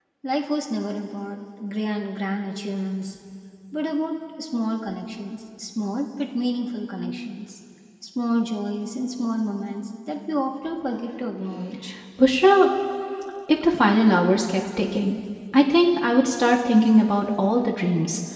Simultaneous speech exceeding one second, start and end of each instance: none

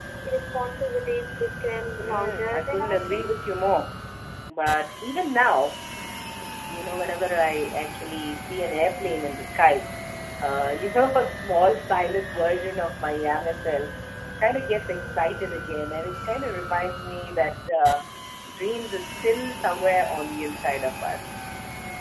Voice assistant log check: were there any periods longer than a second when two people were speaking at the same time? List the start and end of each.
2.0-3.6

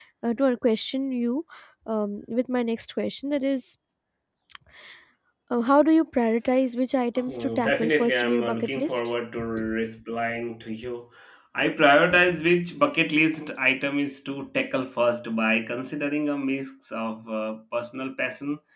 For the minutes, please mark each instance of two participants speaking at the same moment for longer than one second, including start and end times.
7.2-9.1

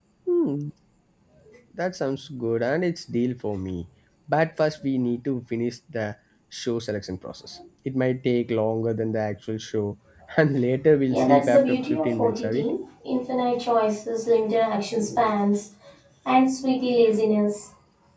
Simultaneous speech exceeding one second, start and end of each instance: 11.1-12.7

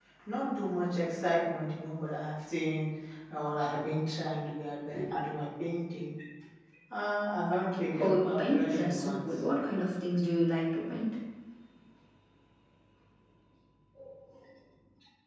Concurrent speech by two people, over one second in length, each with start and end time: 8.0-9.4

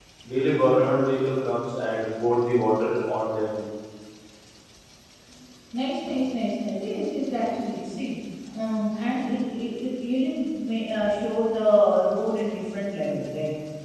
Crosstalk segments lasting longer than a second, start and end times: none

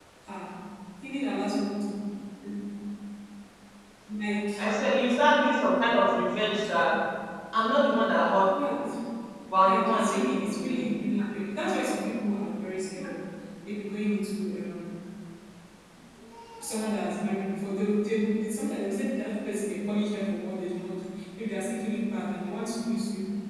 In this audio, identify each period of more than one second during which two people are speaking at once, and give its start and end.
9.6-10.8

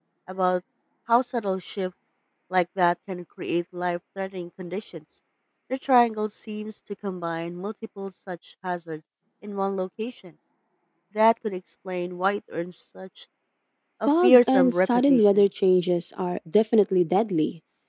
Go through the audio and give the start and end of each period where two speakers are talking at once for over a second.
14.1-15.4

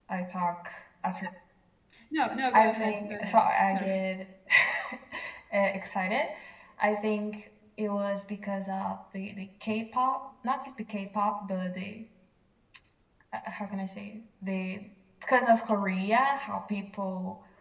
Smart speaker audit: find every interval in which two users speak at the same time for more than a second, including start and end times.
2.5-4.0

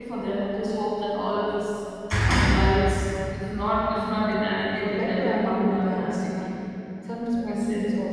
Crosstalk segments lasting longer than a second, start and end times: 4.8-6.5

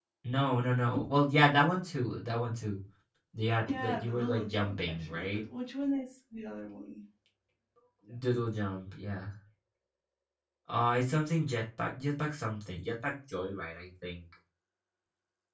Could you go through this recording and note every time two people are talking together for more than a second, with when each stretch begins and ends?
3.8-5.4

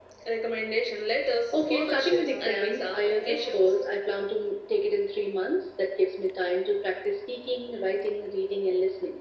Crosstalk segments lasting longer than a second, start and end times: 1.5-3.6

